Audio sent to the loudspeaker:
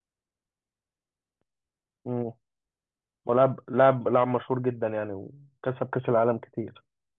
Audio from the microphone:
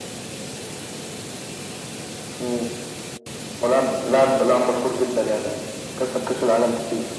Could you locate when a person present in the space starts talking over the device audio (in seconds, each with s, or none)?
none